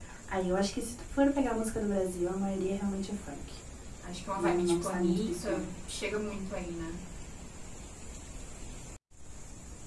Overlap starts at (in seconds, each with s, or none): 4.4 s